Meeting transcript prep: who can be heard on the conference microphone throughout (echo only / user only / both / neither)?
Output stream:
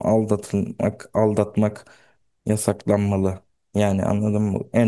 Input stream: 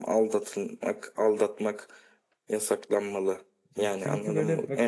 both